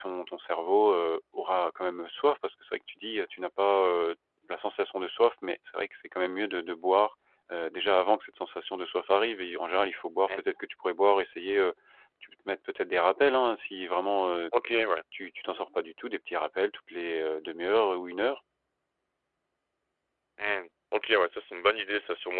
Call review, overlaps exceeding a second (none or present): none